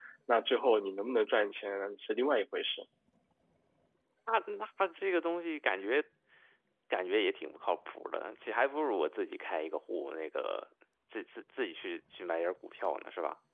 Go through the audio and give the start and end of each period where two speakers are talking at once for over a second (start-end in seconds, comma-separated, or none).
none